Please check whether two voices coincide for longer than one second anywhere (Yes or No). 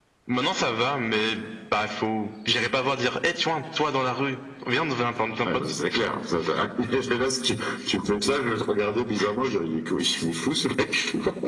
No